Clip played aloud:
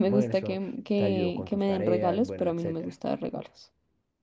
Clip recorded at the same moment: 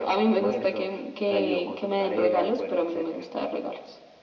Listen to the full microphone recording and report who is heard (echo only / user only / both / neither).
echo only